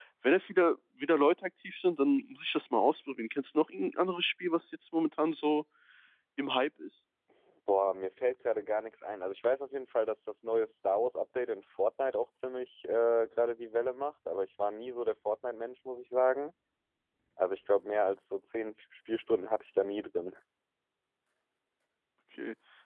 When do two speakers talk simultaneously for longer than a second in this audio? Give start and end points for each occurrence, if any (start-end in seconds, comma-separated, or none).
none